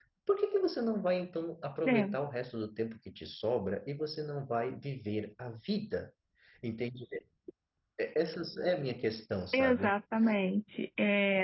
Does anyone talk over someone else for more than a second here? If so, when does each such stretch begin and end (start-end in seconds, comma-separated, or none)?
none